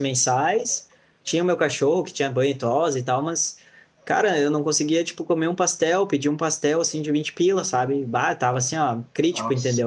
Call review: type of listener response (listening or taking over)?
listening